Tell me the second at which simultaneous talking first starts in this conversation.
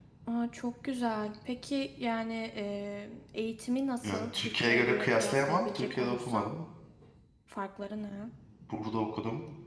4 s

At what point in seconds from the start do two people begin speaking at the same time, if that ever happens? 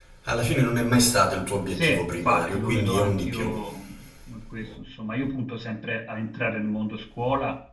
2 s

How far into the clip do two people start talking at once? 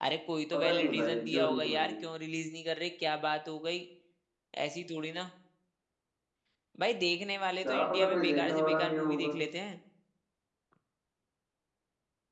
1 s

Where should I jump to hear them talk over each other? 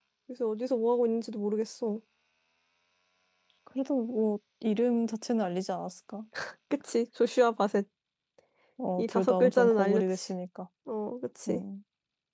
9 s

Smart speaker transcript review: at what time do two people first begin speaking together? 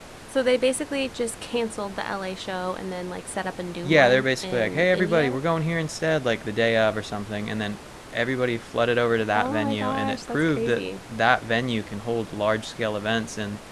4 s

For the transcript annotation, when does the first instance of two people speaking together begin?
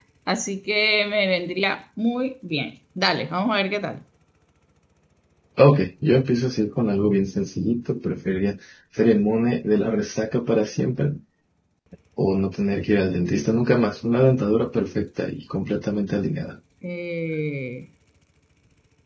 none

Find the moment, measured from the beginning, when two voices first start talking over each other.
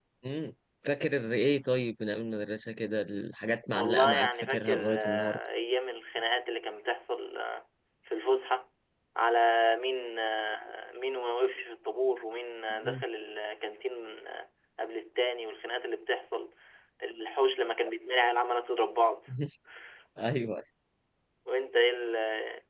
4 s

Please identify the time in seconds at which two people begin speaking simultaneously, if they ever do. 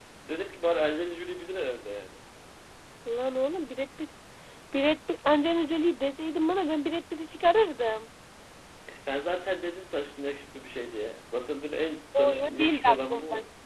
12 s

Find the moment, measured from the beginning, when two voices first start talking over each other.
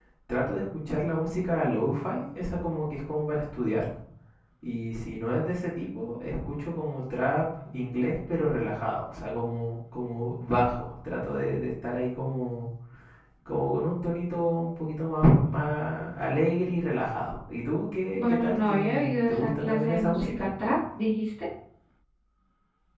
18 s

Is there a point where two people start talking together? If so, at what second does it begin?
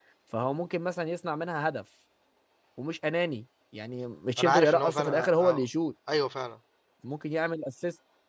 4 s

